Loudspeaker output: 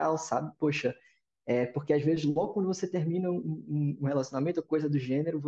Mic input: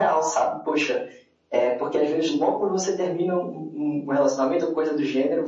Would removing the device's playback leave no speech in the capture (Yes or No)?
Yes